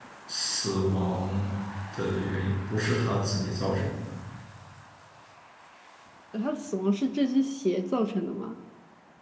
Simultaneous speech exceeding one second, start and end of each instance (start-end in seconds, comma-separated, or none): none